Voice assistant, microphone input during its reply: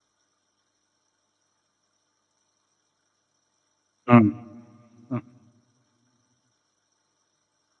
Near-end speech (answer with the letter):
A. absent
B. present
B